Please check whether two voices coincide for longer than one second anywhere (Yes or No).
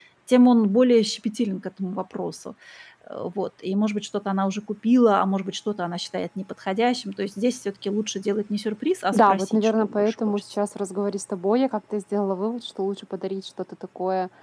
Yes